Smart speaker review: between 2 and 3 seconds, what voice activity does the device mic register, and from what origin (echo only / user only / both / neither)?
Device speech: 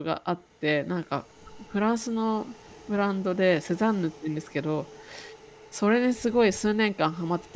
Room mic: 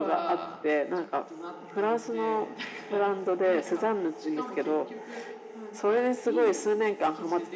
both